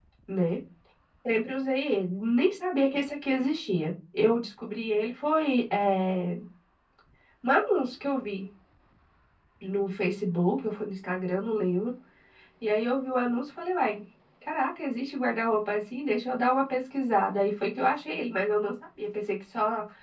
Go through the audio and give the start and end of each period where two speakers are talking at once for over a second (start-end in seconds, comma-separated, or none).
none